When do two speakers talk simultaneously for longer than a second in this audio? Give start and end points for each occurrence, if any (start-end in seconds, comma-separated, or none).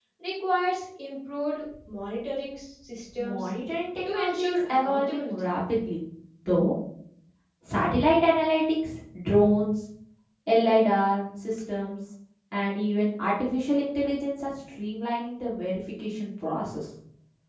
4.1-5.5